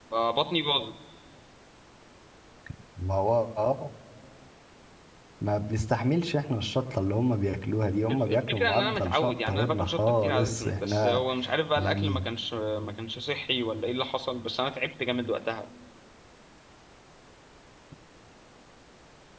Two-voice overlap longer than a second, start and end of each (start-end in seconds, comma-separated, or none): 8.1-11.2